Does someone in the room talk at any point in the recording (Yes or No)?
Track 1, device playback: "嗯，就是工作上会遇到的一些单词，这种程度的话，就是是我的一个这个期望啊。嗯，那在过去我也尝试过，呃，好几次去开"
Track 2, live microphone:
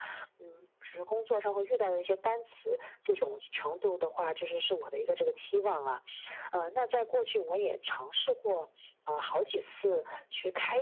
No